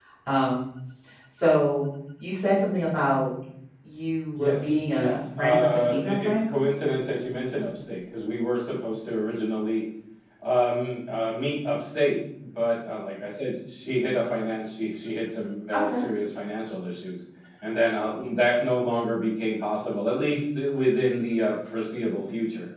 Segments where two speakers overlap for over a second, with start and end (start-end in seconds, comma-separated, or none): 4.3-6.5